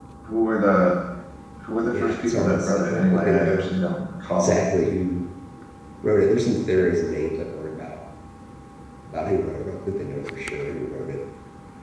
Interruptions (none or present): present